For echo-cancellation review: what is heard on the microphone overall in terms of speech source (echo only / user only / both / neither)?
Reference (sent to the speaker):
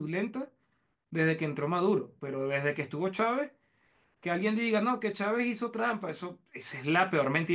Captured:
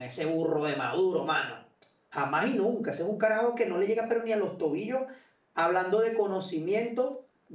user only